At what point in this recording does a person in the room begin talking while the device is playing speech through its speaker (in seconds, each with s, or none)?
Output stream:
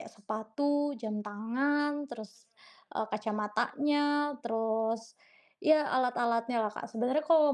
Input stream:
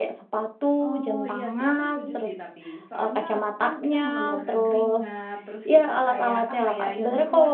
0.8 s